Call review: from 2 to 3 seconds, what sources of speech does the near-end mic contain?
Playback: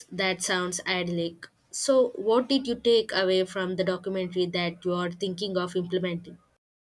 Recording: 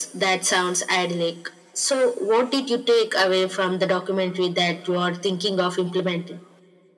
echo only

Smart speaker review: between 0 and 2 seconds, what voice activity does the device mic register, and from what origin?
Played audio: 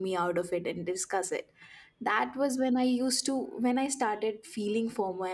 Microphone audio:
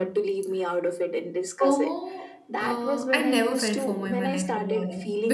both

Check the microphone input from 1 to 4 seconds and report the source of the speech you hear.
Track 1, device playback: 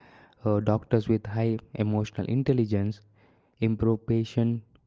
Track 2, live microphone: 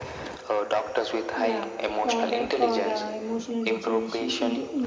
both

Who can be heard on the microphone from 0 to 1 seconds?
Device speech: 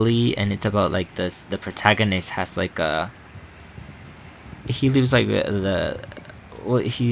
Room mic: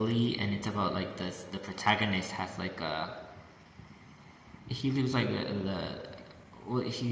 echo only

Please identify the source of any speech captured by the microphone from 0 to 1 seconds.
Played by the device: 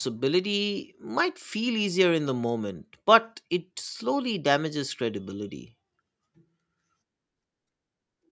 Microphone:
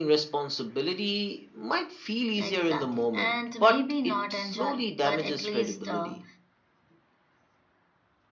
echo only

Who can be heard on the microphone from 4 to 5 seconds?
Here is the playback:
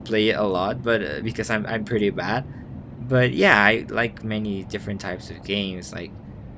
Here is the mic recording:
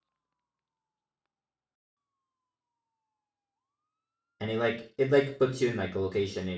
user only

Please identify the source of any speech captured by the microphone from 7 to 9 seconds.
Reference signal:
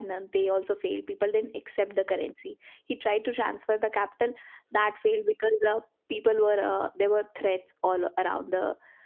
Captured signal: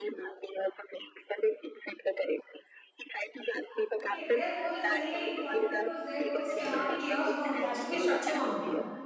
both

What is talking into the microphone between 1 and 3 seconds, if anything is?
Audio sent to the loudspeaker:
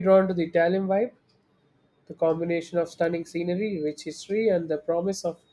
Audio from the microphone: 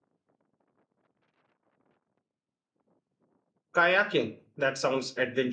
neither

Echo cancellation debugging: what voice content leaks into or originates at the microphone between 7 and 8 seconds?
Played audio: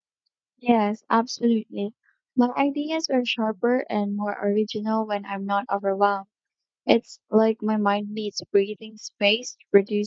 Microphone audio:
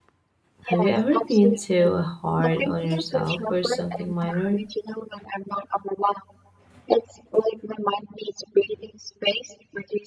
echo only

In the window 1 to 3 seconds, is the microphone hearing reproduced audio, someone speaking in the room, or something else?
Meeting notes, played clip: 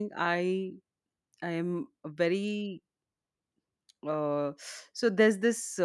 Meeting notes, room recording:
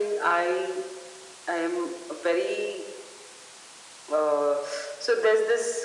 echo only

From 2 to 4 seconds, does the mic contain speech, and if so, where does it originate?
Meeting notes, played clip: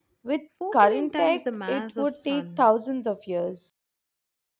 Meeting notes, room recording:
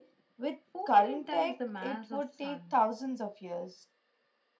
echo only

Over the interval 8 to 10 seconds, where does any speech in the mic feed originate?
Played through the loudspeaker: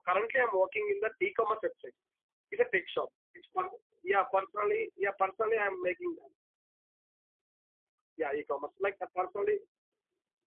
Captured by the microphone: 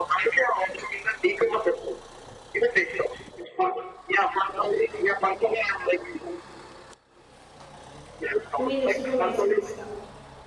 both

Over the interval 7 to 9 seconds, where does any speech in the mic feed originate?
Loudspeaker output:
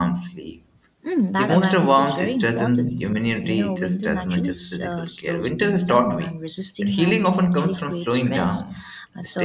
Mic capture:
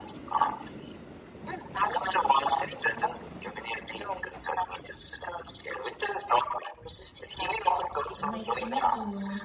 both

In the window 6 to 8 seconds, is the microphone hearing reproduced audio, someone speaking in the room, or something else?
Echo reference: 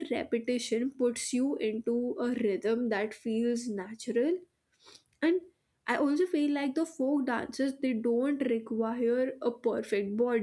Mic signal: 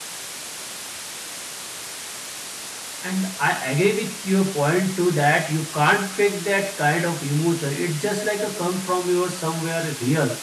user only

